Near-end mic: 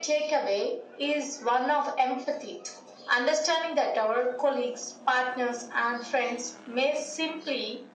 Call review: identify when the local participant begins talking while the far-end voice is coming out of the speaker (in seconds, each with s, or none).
none